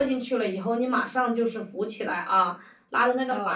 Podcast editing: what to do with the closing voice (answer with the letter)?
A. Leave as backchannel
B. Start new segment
A